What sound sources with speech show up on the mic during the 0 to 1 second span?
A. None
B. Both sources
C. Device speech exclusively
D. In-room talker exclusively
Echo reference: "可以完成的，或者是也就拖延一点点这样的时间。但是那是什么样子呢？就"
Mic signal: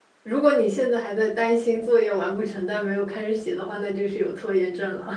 D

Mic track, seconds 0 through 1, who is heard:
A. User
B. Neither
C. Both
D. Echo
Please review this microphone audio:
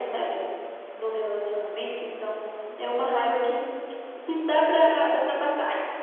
D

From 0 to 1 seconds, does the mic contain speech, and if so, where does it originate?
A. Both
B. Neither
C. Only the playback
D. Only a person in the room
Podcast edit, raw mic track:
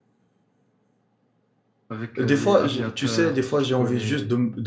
B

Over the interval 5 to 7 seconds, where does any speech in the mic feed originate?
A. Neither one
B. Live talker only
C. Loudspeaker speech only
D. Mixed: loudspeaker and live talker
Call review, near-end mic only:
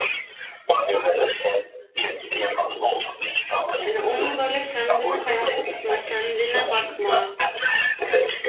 D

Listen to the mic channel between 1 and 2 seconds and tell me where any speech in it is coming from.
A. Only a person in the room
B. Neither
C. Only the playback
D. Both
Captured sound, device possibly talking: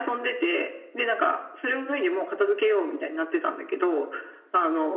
C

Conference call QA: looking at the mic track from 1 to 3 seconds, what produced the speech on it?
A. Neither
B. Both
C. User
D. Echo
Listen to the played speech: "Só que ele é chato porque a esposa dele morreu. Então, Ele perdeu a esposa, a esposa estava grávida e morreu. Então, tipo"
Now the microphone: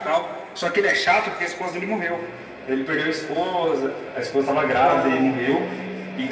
D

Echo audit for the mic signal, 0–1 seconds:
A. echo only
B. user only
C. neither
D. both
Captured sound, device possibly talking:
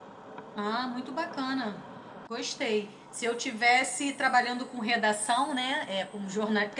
B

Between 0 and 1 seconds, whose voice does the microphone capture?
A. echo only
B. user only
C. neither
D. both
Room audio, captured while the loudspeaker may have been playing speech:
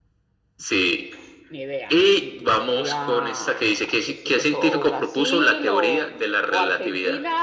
A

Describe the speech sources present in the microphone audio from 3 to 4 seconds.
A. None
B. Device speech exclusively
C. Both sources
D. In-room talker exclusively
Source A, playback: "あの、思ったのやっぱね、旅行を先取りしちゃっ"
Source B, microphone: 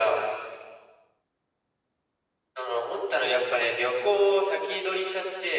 B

